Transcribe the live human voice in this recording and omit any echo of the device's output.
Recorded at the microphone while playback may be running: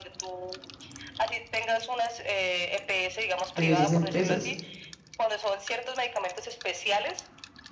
de esas empresas.

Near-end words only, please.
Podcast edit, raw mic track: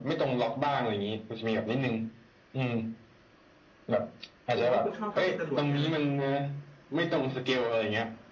คุณบอกว่าคุณชอบพับเป็นจรวดใช่ไหม

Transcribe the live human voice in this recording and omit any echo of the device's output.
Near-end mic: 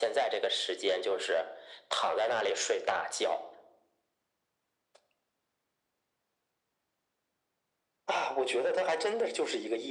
none

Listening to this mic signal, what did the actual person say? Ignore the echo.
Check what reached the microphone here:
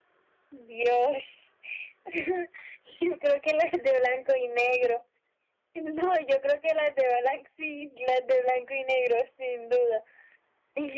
none

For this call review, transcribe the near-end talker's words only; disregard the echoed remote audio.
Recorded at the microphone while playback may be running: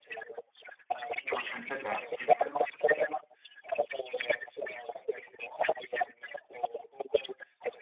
Conoscenze tecniche.

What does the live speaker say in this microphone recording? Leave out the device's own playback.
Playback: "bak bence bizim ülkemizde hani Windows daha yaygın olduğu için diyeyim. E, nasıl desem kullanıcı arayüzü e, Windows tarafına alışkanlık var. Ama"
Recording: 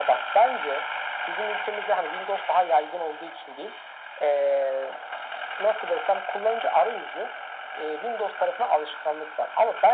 none

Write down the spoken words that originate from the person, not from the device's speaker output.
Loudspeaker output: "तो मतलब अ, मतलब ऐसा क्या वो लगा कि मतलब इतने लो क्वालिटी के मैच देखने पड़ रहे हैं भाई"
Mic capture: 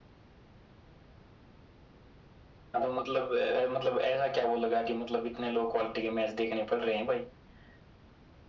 none

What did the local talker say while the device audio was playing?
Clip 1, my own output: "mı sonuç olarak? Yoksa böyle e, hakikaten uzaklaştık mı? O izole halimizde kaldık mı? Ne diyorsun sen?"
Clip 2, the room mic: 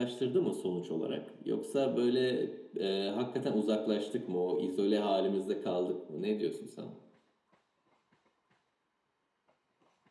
none

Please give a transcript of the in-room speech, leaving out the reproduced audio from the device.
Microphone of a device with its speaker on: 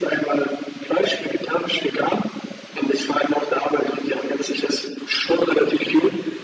none

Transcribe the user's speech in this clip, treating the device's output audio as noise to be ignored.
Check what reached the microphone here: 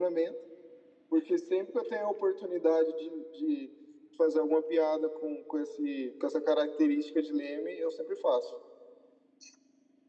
none

